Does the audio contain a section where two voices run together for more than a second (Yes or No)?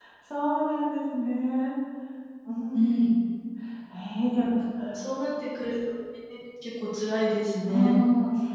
No